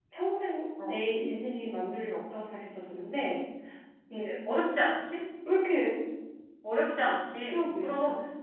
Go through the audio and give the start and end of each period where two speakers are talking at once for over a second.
none

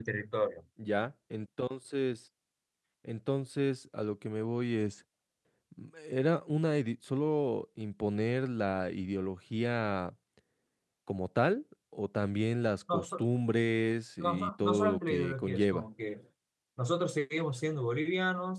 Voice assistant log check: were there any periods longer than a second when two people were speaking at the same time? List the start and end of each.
14.2-15.8

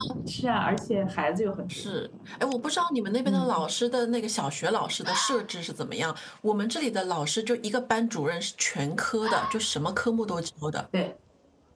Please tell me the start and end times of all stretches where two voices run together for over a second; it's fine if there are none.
none

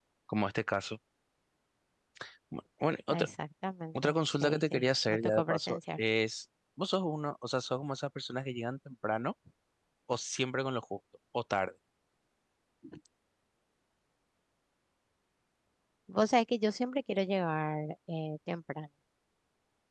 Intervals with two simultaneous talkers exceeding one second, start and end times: 4.0-6.0

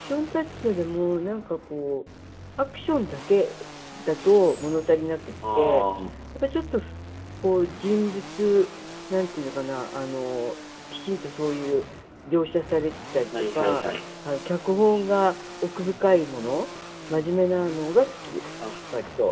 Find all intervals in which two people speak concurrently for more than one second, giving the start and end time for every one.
none

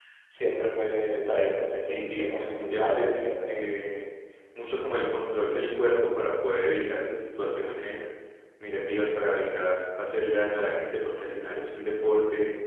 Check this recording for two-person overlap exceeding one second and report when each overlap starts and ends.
1.9-3.6

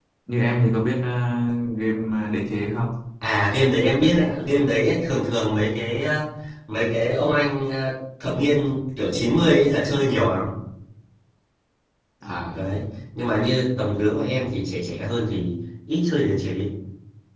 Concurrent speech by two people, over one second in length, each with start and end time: none

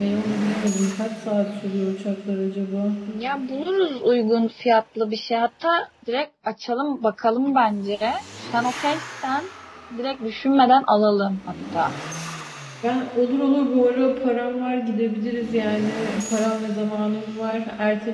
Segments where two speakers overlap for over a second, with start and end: none

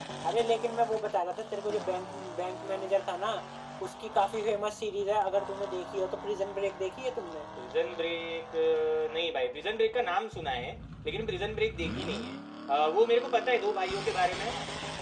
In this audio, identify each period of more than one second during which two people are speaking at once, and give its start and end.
none

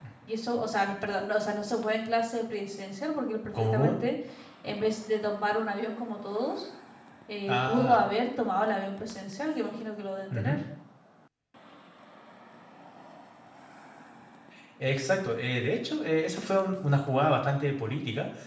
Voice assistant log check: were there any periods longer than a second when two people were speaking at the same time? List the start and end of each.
none

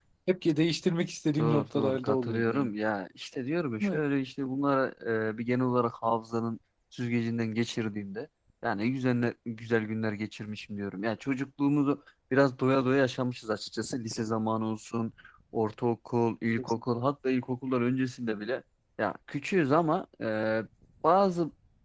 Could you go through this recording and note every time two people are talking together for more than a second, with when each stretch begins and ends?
1.4-2.7

